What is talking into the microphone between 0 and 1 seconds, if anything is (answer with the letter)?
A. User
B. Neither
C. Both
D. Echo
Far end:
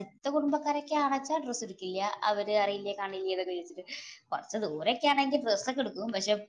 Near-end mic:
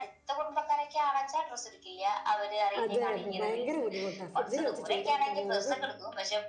D